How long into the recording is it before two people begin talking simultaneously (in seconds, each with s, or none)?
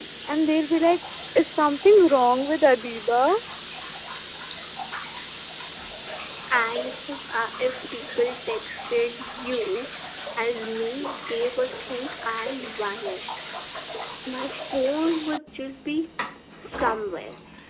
none